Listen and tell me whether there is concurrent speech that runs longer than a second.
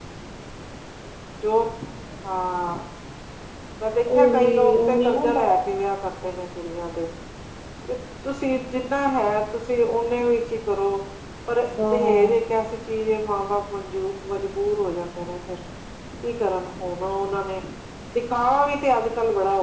Yes, from 4.2 s

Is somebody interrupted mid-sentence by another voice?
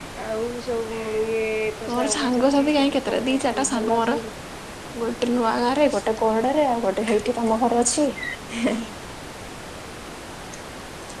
Yes, from 1.9 s

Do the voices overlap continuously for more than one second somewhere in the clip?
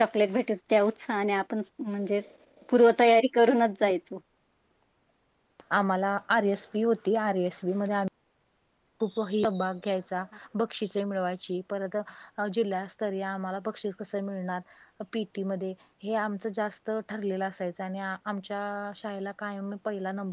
No

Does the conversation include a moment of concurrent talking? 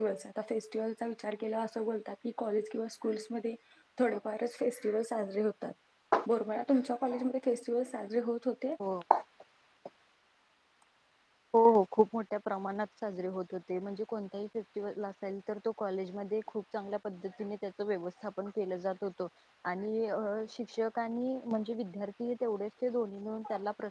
No

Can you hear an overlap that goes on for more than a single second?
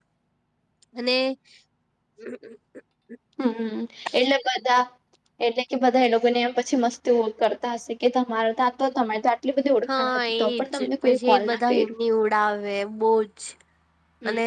Yes, from 9.9 s

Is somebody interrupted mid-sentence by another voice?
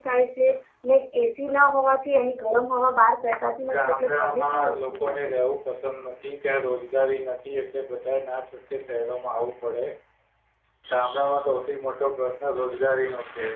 Yes, from 3.6 s

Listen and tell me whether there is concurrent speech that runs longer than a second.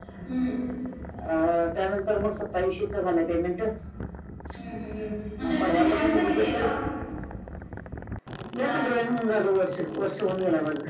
Yes, from 5.4 s

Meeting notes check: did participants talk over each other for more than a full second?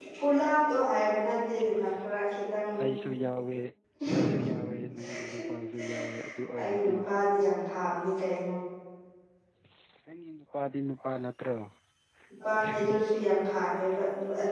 No

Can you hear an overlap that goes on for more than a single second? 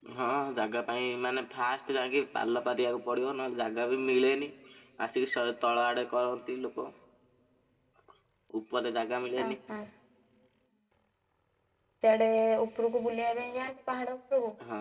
No

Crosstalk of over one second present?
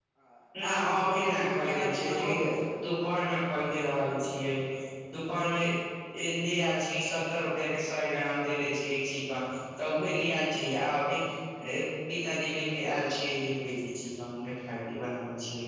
Yes, from 0.6 s

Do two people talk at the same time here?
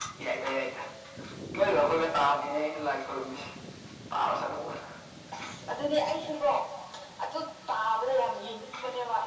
No

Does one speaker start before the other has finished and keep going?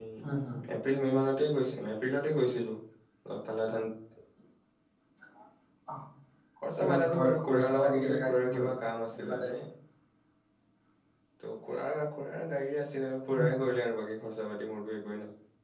Yes, from 6.8 s

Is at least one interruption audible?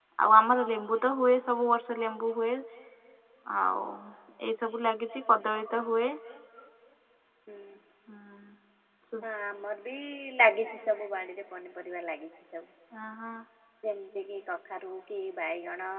No

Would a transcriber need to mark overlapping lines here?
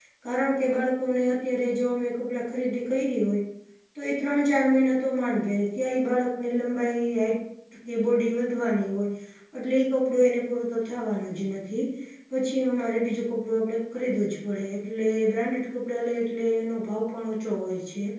No

